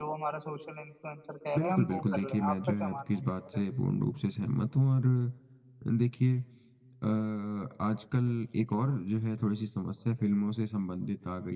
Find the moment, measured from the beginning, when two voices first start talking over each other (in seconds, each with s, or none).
1.5 s